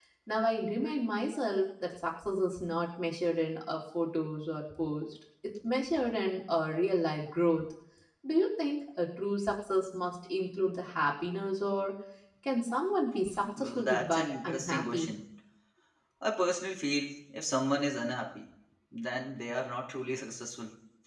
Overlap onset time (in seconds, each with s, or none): 13.4 s